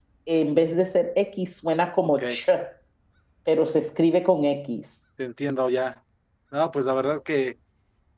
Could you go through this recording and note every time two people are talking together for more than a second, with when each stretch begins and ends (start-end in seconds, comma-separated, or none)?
none